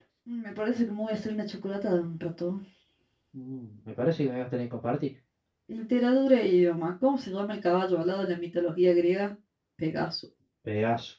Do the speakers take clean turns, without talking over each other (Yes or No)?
Yes